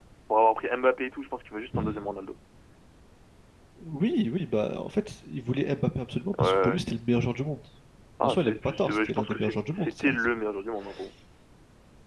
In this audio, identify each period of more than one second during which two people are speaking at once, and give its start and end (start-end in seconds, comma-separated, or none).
8.2-10.2